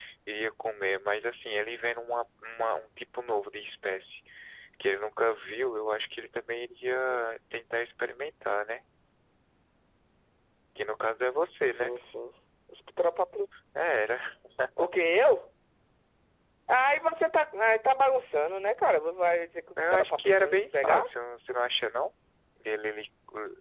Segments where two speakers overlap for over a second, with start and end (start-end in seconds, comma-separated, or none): 19.8-21.0